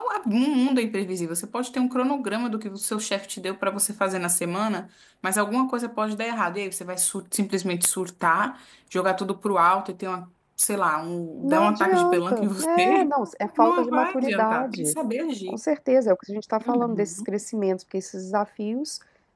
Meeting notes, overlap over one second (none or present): present